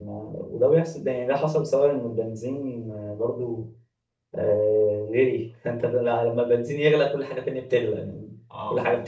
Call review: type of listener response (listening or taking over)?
listening